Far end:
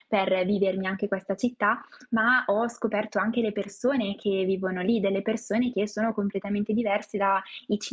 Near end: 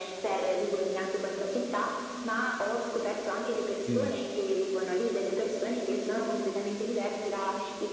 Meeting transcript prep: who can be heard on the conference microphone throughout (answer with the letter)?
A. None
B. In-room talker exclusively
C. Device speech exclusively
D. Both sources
D